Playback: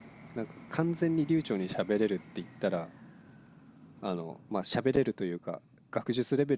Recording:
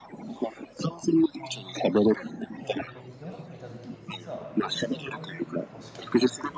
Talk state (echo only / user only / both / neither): both